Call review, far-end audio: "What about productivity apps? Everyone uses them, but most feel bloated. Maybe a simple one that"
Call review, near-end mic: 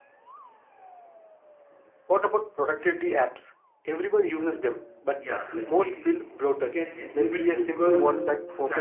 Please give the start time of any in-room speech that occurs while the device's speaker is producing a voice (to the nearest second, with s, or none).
4 s